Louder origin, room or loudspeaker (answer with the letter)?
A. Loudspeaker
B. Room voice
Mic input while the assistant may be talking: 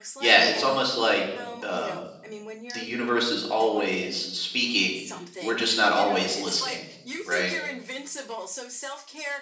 B